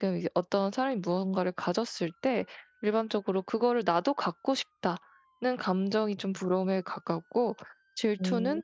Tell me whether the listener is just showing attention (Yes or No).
Yes